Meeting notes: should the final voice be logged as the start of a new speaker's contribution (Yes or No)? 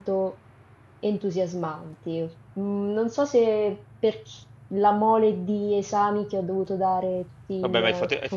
Yes